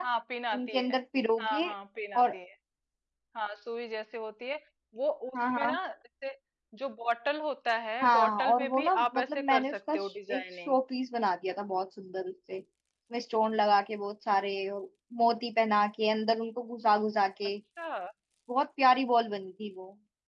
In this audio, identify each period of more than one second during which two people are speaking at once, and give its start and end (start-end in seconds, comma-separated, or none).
8.0-10.8